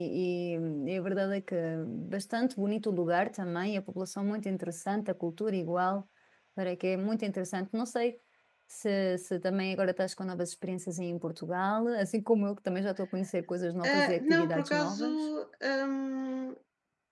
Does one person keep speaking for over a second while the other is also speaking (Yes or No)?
Yes